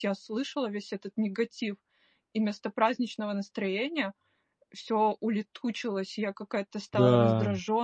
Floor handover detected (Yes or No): No